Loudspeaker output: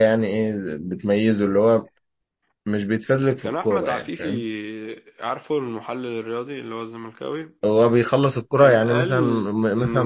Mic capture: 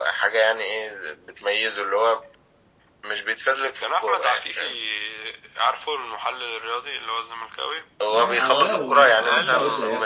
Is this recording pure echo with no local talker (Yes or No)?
No